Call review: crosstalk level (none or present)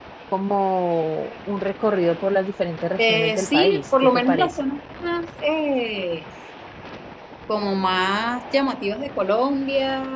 present